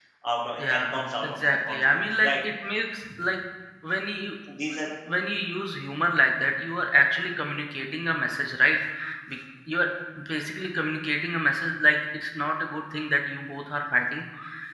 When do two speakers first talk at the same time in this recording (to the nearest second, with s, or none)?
1 s